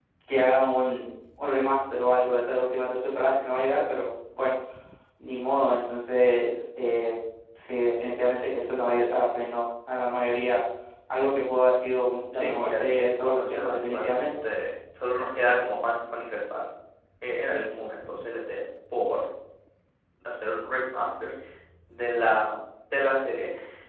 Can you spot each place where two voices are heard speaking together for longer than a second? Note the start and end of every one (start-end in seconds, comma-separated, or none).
12.3-14.3